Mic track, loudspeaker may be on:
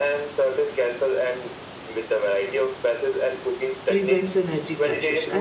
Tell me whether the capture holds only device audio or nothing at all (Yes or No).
No